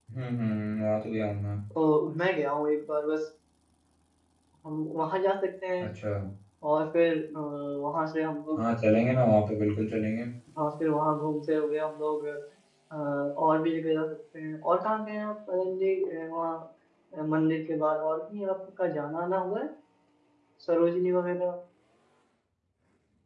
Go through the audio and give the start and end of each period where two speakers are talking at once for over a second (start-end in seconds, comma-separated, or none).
none